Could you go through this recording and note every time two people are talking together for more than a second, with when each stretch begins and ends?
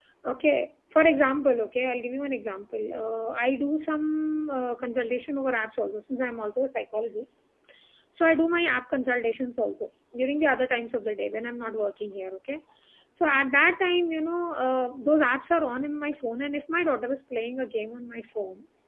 none

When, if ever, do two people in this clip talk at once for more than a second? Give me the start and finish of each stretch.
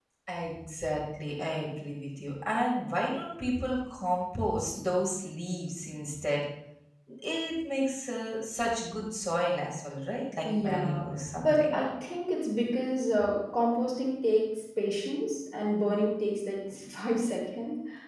none

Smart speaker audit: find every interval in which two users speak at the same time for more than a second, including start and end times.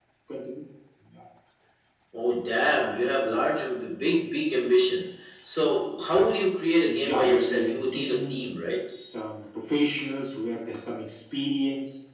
6.8-8.5

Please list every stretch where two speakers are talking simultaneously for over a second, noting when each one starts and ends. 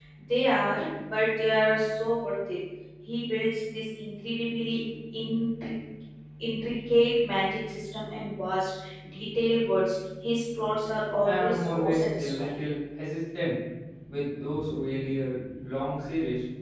11.2-12.5

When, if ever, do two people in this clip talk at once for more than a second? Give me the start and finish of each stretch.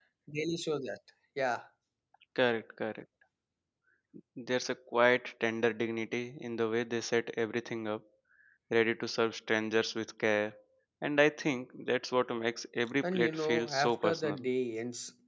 13.0-14.5

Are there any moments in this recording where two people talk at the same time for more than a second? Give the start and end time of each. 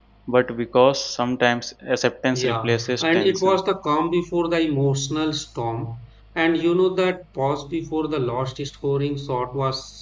2.3-3.6

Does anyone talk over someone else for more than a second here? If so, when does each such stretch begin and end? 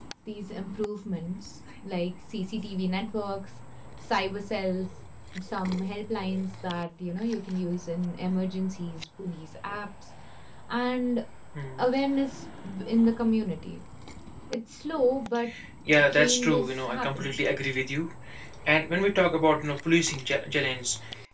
16.1-17.4

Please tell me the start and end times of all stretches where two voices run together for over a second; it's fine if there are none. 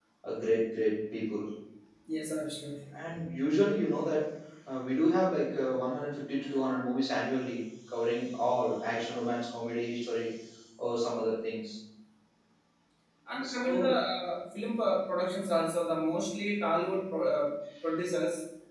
none

